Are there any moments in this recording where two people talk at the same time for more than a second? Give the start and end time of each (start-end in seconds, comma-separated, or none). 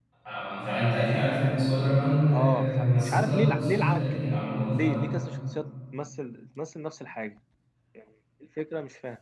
2.3-5.2